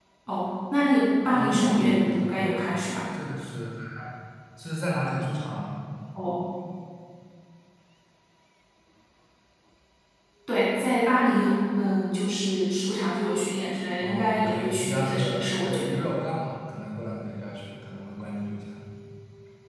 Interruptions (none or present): present